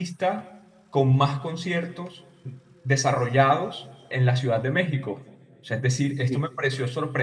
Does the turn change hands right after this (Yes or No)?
No